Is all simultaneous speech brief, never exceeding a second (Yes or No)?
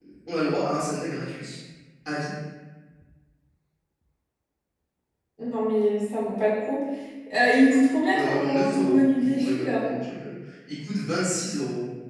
No